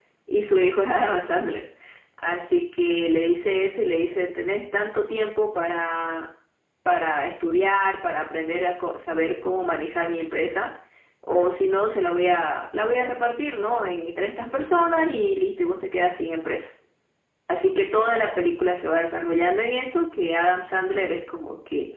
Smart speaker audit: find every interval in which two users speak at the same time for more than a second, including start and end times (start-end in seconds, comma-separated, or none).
none